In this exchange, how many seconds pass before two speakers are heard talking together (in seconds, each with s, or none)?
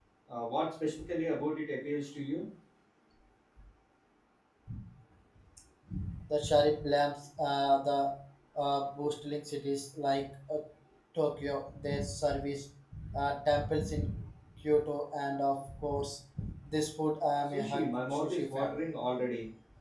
17.5 s